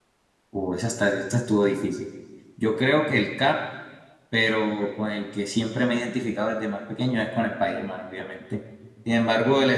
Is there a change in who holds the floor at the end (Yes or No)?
No